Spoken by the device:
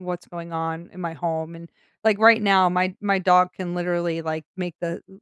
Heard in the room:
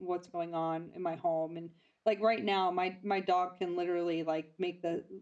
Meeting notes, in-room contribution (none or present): none